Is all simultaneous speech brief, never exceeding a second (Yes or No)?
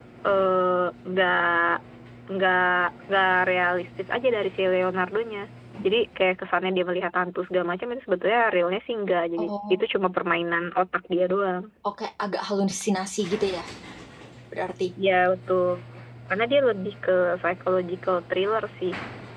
Yes